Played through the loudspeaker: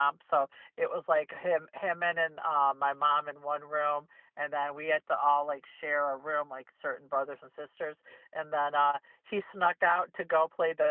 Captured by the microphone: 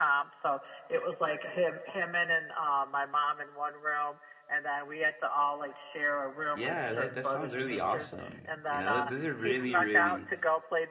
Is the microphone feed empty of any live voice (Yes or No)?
No